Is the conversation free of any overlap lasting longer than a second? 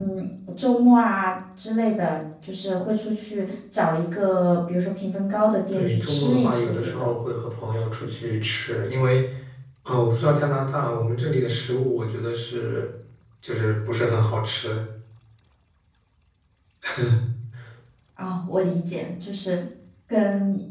No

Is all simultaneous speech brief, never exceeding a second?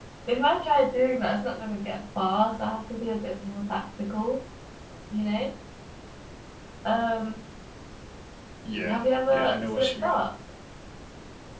No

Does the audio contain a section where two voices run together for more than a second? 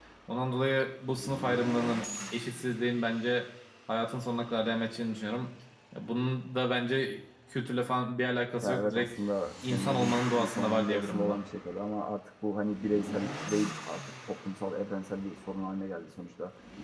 Yes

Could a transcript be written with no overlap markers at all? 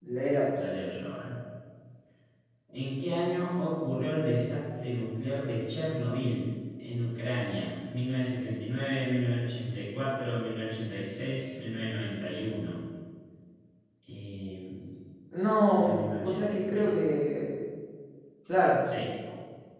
No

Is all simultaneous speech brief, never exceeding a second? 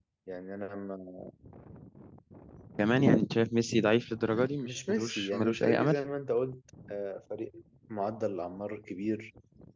No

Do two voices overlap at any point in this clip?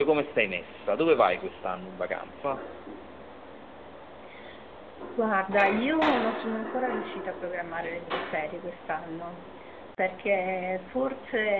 No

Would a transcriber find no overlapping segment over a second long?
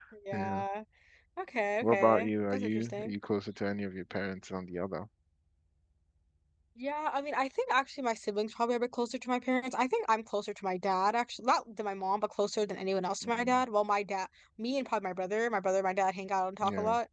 No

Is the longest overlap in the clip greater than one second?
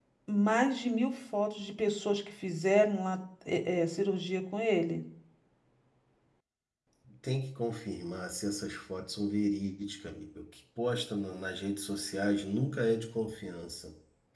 No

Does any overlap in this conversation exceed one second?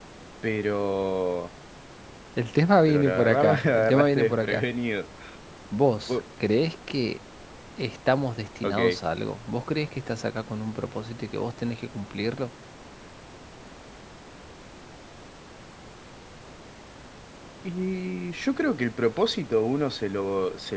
Yes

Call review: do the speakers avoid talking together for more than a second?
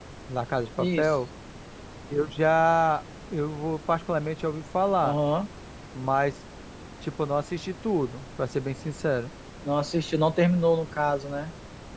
Yes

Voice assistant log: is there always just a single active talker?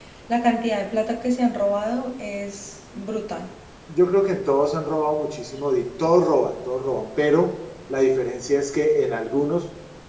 Yes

